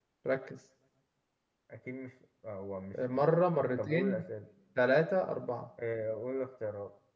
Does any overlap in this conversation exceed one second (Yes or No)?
No